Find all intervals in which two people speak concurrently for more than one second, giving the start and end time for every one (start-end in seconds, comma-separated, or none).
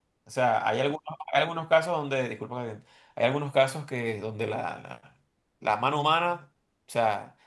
none